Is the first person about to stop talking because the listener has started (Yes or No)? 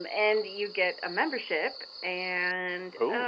No